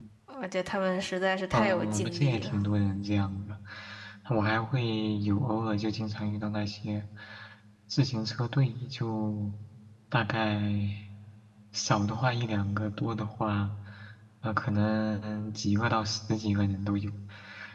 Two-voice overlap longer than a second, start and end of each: 1.5-2.7

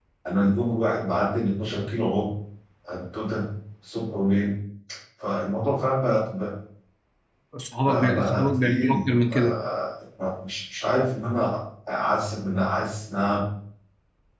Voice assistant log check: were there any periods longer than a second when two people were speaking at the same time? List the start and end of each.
7.8-9.6

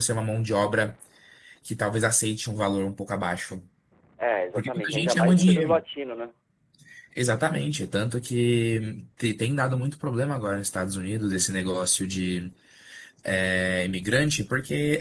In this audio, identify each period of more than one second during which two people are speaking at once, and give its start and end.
4.6-5.8

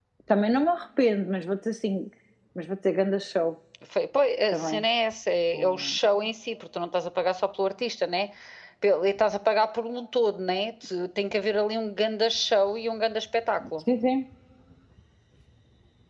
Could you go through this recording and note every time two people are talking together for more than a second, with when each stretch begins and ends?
none

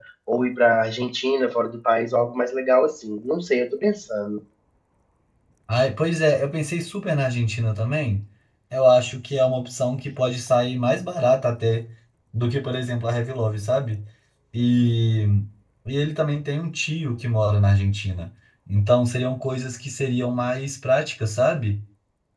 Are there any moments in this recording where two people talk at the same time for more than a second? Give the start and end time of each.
none

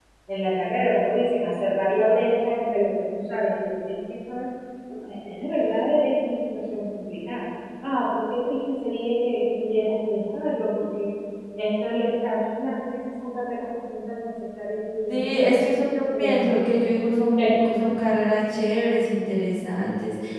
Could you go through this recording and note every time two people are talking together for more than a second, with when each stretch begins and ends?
none

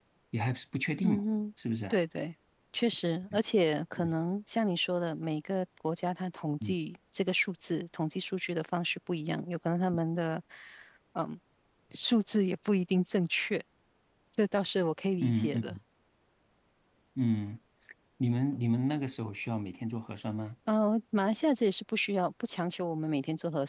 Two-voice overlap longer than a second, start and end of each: none

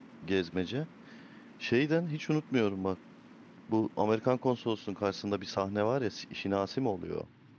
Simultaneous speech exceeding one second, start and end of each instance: none

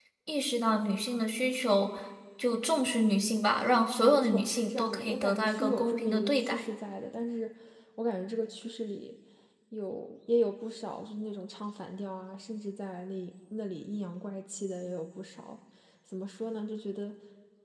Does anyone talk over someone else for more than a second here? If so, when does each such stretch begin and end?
4.0-6.6

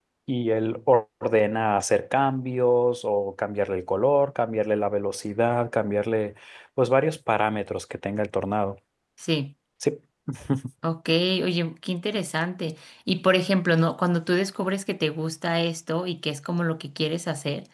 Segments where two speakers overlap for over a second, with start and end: none

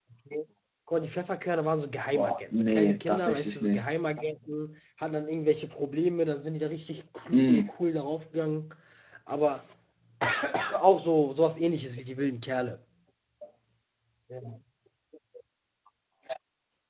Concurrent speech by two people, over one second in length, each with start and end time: 2.1-3.8

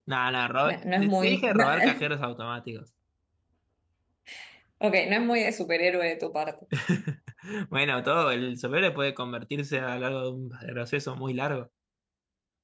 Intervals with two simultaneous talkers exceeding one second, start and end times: 0.7-2.1

